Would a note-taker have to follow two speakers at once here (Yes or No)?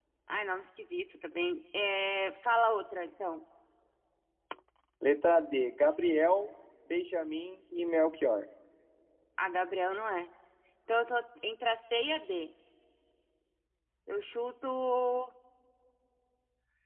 No